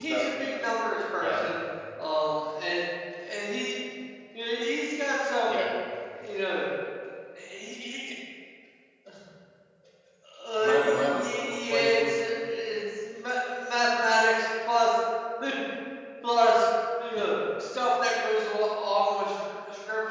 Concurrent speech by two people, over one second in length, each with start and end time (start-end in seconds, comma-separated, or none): 10.6-12.1